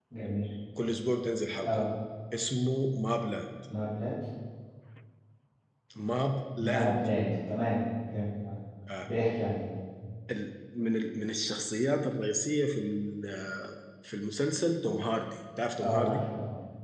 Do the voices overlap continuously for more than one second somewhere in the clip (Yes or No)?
No